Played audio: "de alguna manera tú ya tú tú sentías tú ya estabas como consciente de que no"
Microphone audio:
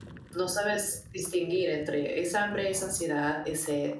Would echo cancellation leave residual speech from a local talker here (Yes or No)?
Yes